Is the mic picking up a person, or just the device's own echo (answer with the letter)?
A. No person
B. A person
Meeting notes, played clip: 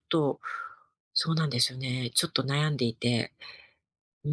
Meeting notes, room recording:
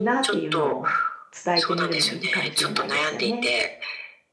B